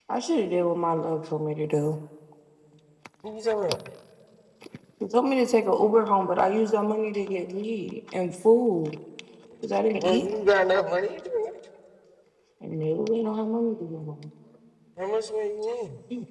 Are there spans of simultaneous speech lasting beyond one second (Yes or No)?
No